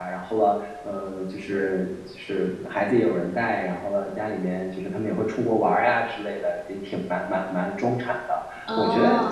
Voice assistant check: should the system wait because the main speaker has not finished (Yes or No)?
Yes